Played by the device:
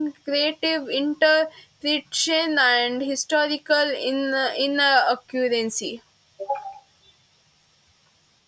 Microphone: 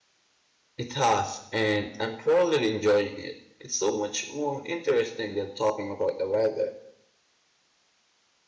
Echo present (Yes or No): No